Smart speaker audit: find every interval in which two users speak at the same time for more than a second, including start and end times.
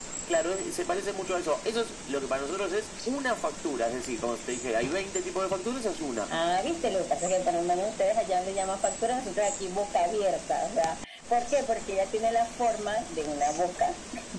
none

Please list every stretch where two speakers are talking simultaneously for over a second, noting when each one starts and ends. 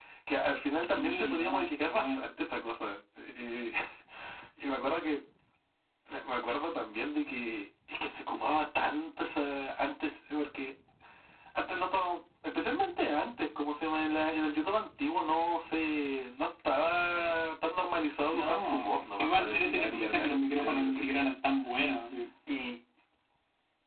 0.9-2.2, 18.3-21.3

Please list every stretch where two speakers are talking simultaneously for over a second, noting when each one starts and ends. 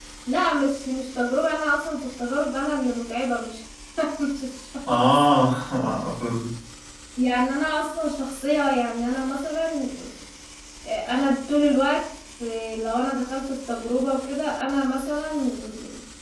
none

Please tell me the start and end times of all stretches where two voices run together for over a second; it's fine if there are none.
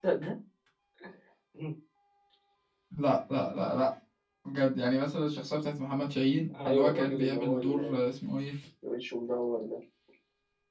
6.7-8.1

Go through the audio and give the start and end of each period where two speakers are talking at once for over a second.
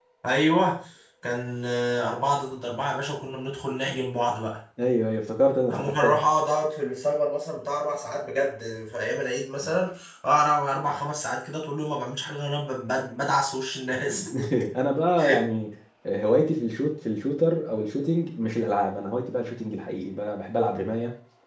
none

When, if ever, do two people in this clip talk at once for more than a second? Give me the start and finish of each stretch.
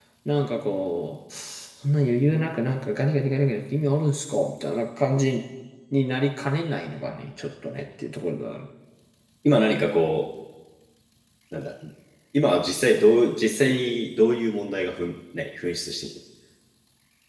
none

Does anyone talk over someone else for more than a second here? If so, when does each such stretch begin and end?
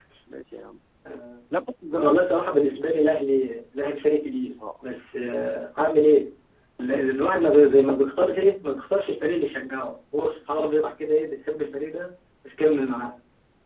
none

